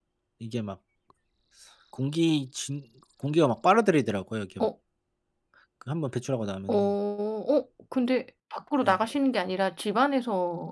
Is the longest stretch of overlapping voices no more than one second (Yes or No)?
Yes